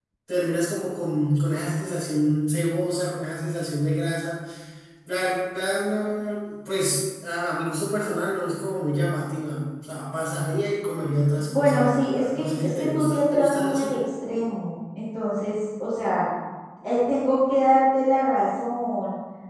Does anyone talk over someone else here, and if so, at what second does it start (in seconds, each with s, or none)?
11.5 s